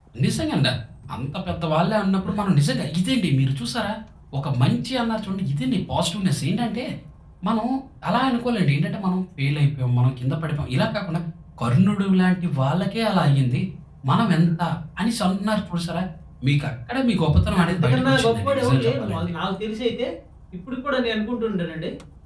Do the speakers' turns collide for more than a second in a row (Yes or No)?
Yes